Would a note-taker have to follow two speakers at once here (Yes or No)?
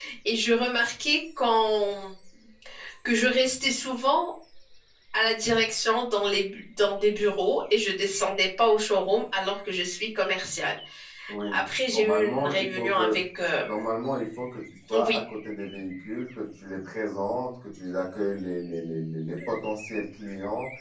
Yes